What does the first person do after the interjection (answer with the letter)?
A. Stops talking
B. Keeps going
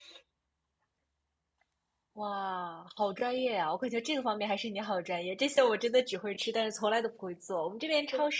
B